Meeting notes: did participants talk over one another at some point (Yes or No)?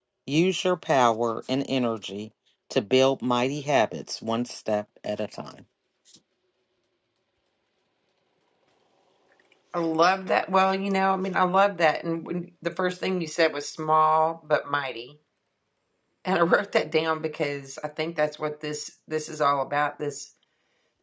No